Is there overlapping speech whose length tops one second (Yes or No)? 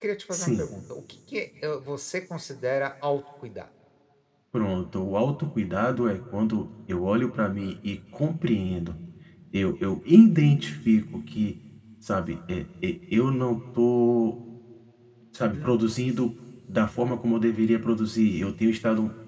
No